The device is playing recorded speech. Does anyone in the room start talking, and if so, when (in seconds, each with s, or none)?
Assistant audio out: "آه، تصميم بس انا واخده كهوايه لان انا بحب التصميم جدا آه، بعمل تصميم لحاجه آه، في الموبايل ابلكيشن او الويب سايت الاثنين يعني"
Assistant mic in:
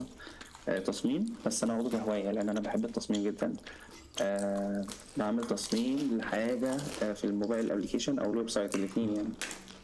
none